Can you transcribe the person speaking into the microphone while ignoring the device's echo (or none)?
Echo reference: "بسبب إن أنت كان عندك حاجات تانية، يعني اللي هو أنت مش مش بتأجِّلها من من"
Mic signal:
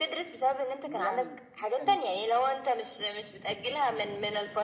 يعني كان